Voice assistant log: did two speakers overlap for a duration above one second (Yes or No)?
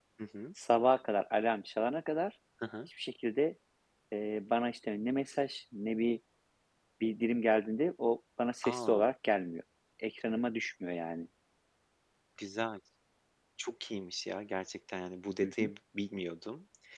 No